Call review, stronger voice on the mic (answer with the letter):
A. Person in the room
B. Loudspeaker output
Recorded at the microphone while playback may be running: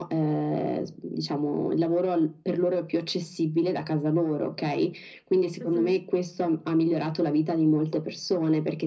B